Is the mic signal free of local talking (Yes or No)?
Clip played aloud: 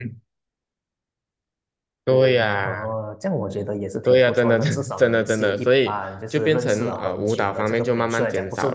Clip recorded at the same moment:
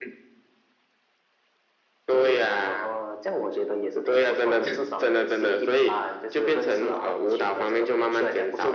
Yes